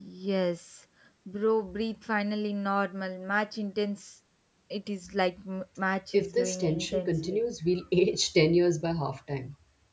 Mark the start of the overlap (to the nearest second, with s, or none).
6 s